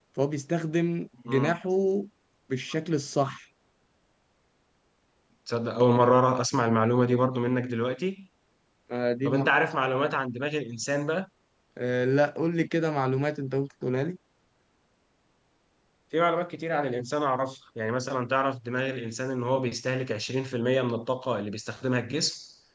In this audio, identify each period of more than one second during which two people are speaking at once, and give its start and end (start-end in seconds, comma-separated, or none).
none